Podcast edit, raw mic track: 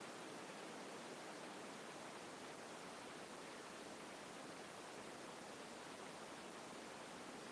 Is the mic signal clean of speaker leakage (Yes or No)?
Yes